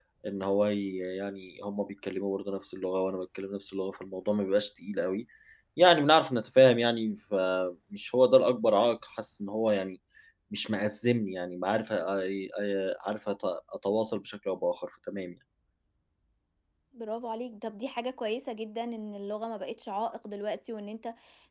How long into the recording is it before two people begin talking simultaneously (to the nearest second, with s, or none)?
none